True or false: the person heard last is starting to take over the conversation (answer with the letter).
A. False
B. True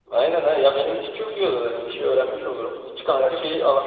A